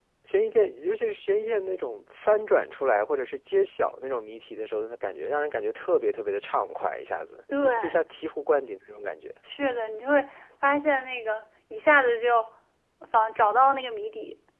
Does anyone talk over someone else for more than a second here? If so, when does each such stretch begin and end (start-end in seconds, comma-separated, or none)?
none